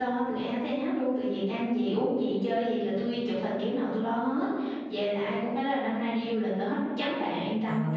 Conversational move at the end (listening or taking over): taking over